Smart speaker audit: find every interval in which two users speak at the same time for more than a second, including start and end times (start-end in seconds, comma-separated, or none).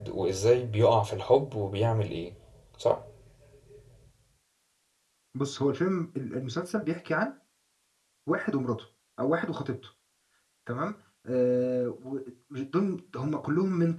none